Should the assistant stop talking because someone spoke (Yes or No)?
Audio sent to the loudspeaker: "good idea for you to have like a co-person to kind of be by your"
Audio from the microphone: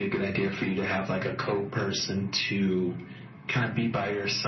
No